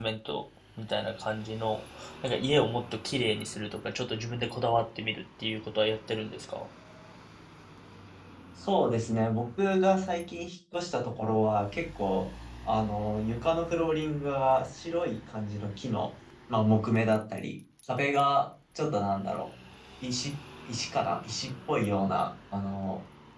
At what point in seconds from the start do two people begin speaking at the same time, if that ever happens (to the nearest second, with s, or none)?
none